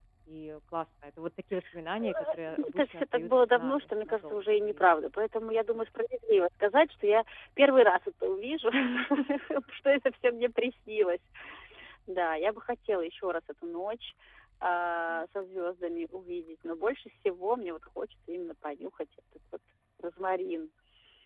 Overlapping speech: Yes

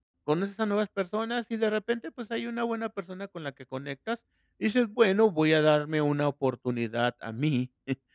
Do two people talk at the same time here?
No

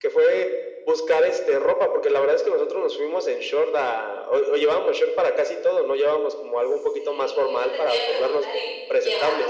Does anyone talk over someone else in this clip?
Yes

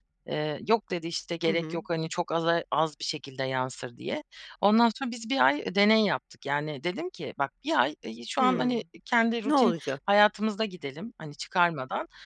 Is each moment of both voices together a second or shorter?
Yes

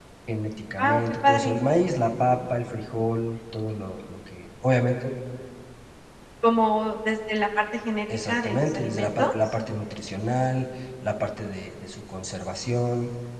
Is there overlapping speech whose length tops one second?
Yes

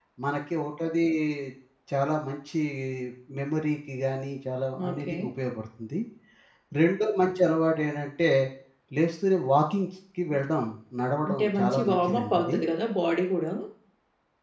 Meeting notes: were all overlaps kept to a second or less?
No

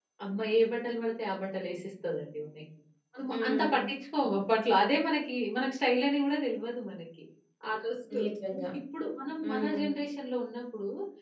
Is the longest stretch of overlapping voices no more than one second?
Yes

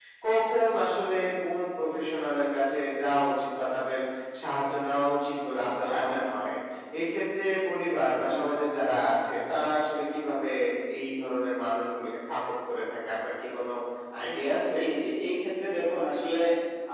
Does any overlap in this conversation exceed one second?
No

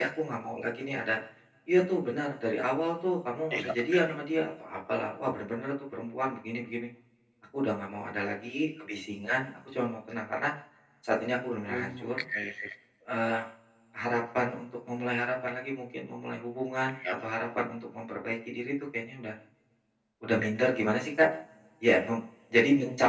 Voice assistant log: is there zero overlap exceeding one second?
Yes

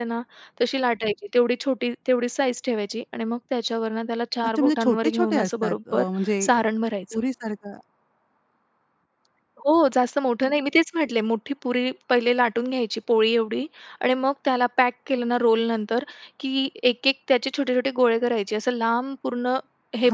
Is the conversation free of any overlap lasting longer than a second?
No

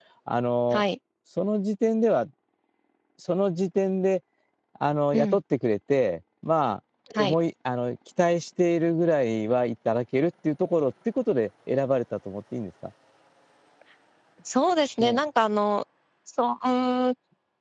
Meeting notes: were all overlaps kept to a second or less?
Yes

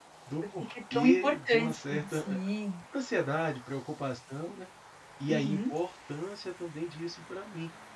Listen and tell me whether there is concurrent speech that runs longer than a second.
Yes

